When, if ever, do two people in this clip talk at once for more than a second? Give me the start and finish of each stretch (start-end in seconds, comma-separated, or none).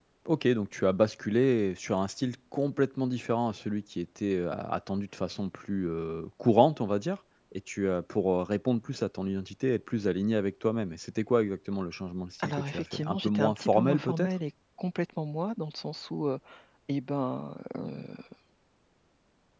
12.4-14.3